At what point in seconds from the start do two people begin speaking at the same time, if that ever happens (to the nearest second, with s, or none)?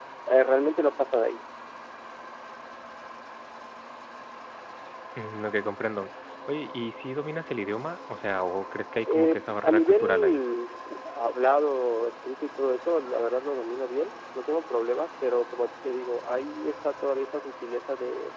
9 s